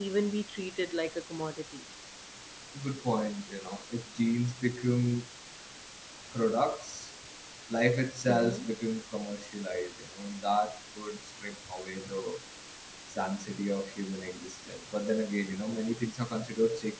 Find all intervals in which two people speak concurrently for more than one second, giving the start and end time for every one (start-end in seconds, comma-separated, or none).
none